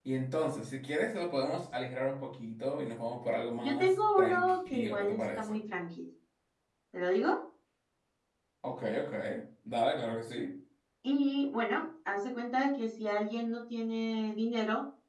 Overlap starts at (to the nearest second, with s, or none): 4 s